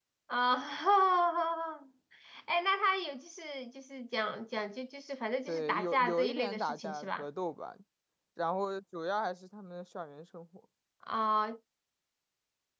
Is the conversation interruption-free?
No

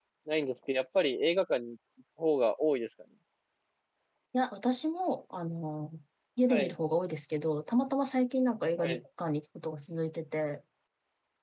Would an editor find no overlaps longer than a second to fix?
Yes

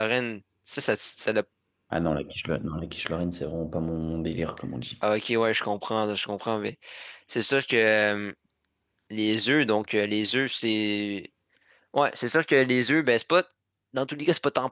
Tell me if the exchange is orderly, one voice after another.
Yes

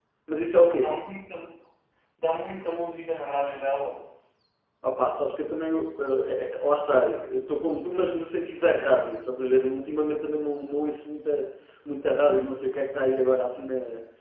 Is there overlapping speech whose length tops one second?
No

